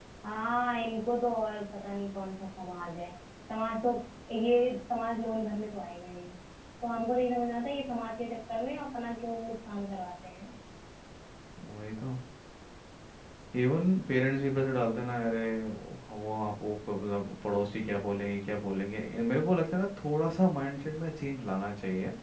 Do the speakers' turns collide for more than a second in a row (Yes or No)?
No